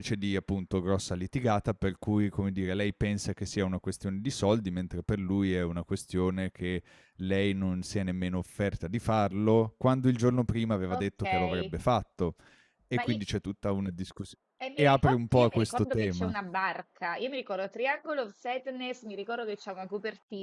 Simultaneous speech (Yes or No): Yes